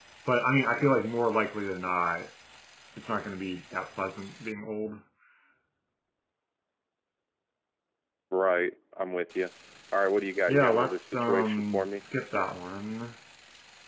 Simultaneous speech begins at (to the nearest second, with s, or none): 10 s